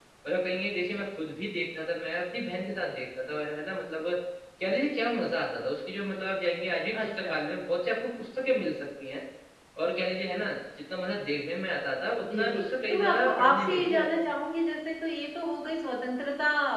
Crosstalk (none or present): present